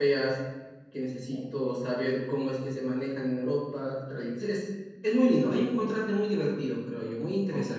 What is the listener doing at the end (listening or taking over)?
taking over